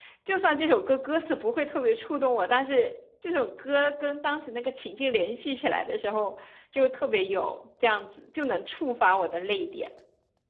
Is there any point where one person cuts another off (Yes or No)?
No